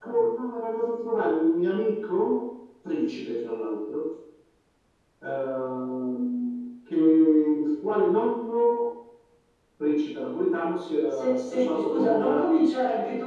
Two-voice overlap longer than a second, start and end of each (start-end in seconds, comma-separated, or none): 11.1-12.4